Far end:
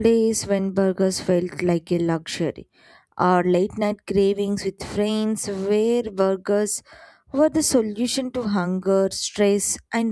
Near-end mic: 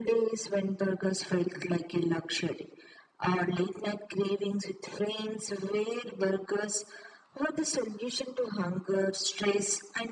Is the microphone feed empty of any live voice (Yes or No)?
Yes